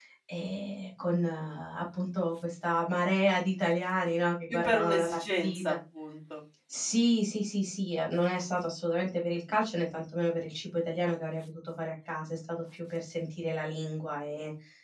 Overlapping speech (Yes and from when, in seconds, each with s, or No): Yes, from 4.5 s